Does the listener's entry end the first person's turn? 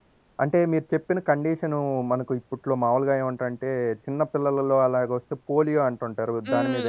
Yes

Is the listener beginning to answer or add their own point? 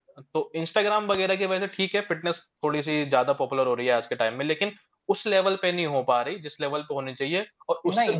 Yes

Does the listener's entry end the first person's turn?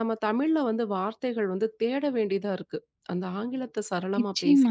Yes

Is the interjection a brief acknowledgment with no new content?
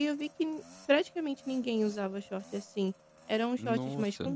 Yes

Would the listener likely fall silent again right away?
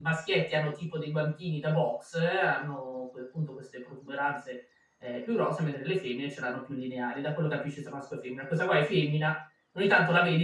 Yes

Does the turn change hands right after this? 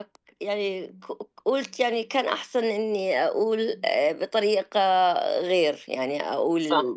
Yes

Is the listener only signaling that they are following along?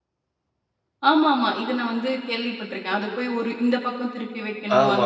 No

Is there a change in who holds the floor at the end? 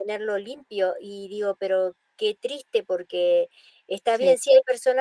No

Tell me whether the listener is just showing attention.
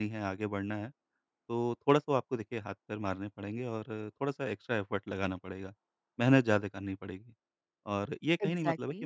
Yes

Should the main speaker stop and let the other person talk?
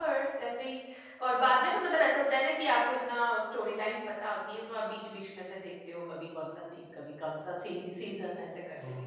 Yes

